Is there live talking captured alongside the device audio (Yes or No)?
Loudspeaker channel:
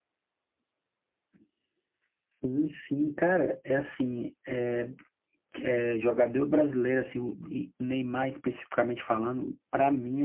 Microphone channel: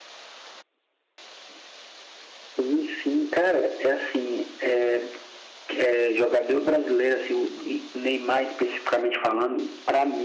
No